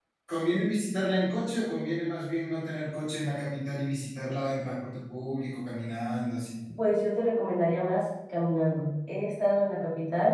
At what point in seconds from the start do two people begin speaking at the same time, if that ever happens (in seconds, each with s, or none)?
none